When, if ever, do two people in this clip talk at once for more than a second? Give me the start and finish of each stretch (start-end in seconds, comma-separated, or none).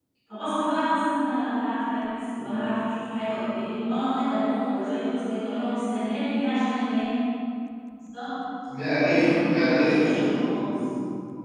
9.2-10.6